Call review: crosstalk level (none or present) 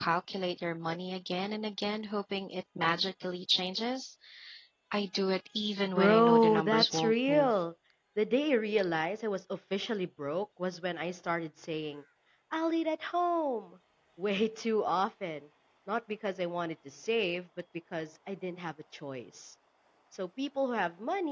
present